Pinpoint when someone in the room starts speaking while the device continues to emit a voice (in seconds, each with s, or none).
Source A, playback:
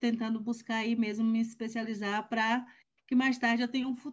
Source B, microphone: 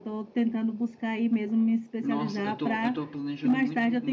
2.0 s